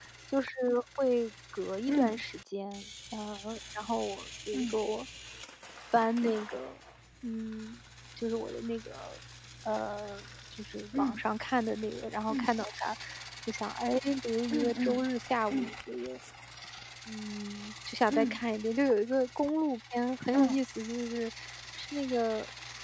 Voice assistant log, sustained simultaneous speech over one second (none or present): none